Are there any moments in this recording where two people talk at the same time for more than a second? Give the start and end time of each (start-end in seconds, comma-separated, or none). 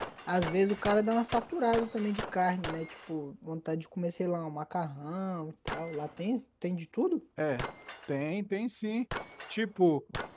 none